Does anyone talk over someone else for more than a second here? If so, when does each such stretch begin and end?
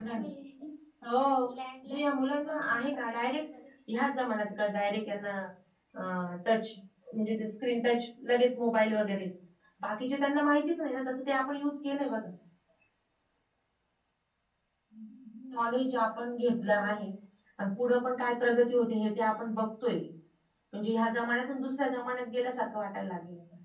1.9-3.4

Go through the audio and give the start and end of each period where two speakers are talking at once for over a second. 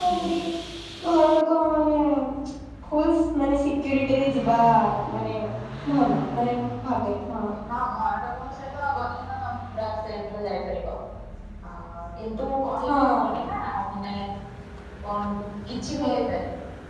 none

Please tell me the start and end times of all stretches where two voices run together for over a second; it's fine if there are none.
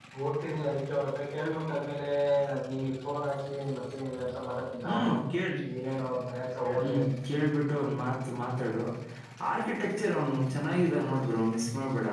none

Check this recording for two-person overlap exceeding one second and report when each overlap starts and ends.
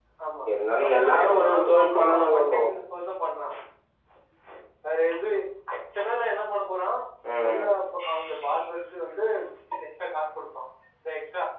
0.8-2.6

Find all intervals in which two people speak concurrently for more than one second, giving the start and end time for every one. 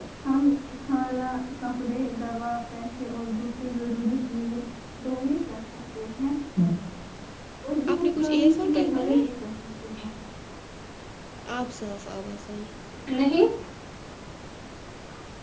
7.9-9.2

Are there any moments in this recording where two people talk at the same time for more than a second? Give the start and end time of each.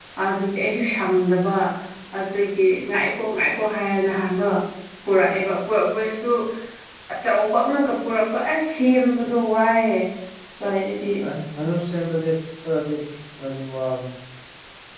none

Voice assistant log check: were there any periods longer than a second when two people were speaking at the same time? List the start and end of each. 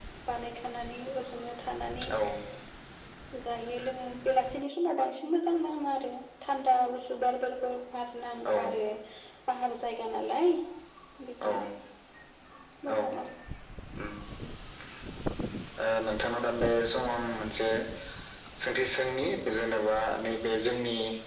none

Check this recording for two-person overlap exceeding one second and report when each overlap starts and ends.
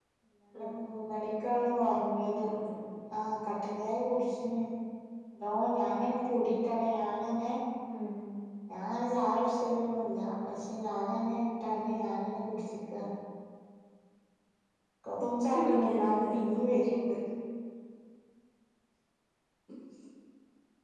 15.4-16.6

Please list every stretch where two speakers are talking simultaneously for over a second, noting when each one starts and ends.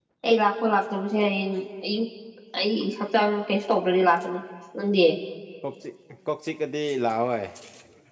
none

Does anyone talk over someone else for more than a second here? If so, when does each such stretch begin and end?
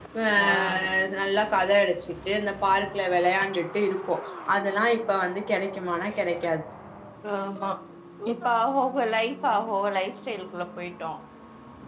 none

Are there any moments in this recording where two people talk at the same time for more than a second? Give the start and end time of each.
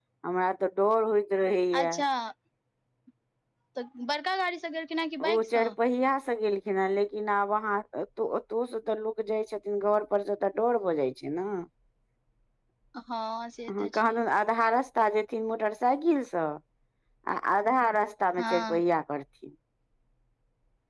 none

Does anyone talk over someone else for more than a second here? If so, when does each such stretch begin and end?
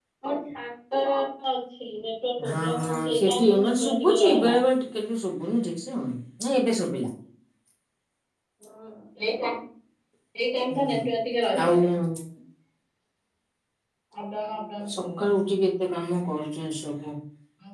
2.5-4.5

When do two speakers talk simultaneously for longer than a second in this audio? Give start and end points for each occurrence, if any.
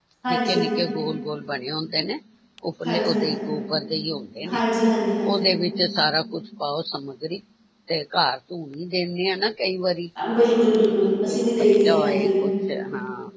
11.0-12.3

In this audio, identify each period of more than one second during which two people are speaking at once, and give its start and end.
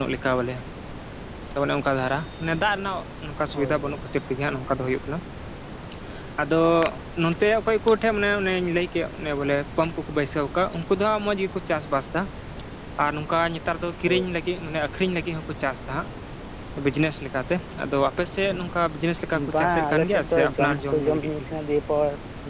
19.5-21.5

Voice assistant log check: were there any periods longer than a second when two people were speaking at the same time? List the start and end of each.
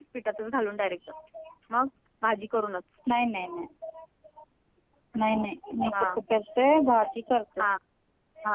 none

